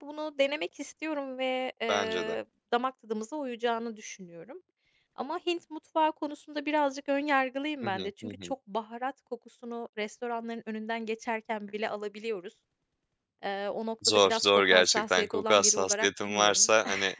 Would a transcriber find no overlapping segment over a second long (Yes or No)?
No